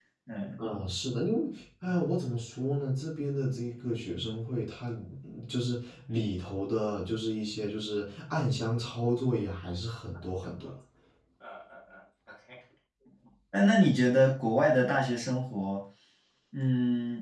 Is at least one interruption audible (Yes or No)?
No